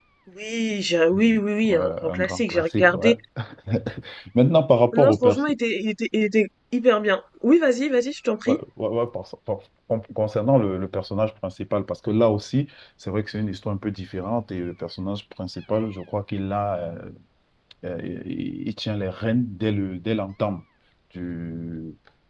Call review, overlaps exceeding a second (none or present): present